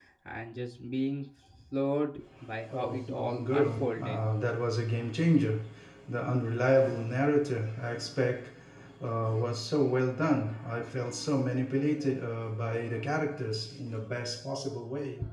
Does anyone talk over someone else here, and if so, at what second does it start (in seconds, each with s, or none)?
2.7 s